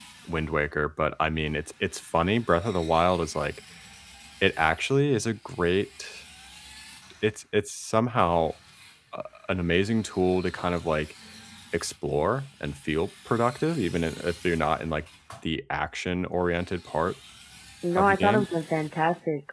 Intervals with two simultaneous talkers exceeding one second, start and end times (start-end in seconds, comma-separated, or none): none